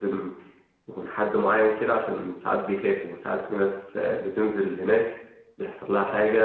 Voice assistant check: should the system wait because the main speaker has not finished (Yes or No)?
Yes